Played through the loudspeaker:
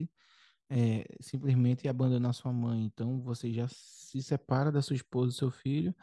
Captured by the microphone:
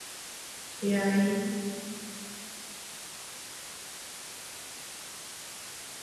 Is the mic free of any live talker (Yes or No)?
No